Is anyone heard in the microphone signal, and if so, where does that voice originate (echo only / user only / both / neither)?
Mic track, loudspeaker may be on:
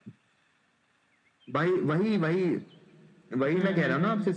both